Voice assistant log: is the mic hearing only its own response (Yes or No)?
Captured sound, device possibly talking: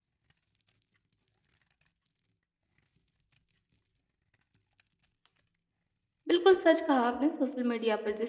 No